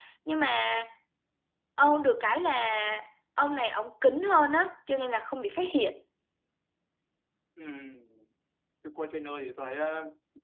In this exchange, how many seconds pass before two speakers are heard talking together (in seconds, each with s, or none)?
none